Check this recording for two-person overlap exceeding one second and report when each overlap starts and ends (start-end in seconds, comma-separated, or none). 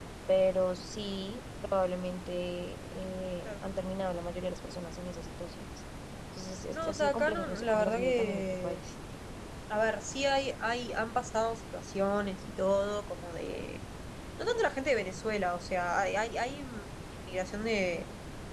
6.7-8.8